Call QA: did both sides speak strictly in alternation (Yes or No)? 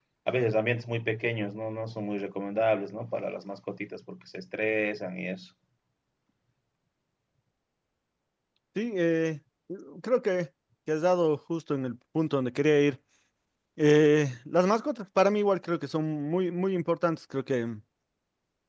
Yes